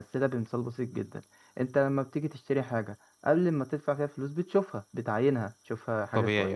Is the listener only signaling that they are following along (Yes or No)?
Yes